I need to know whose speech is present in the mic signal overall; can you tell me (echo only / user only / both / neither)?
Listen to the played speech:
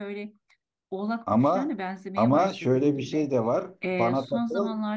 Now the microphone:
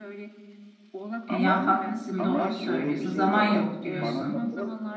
both